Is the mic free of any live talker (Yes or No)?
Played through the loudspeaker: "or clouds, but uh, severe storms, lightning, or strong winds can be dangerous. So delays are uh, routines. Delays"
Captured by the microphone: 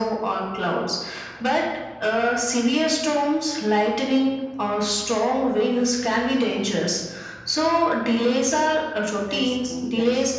No